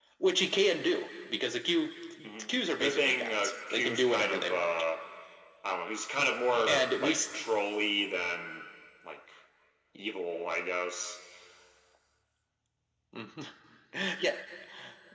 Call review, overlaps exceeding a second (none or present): present